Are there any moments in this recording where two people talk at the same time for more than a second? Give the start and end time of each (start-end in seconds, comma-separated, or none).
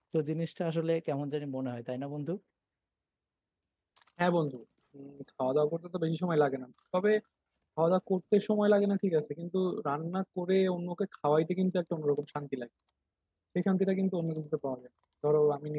none